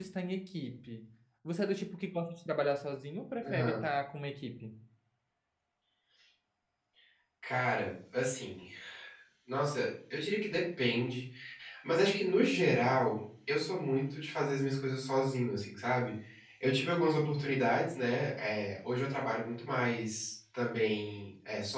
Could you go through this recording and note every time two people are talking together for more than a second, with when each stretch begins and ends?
none

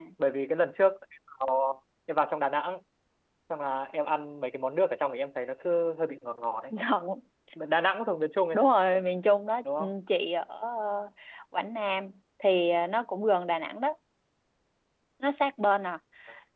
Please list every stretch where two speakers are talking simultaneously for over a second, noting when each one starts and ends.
none

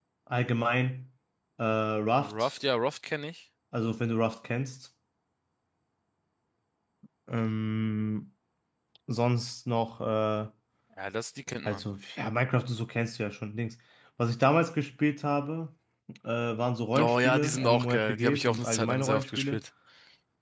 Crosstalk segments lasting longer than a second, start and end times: 17.0-19.6

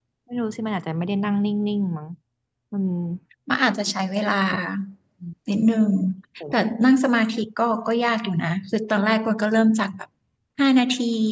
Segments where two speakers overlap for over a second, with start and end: none

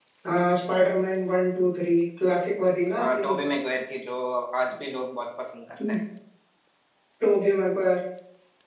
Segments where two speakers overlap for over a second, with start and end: none

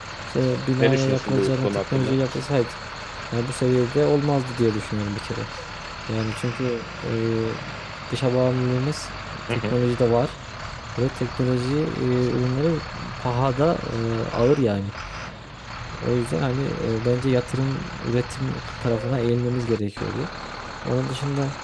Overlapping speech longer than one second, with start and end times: 0.8-2.2

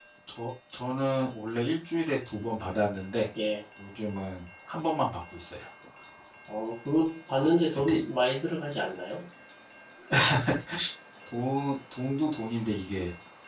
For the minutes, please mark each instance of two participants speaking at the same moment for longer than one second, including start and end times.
none

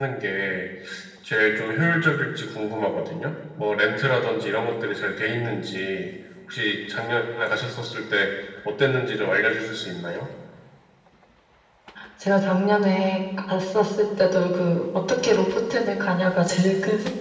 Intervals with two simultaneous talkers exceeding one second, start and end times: none

